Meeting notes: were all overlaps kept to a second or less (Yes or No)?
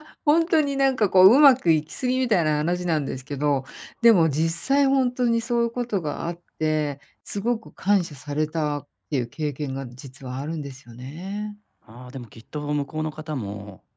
Yes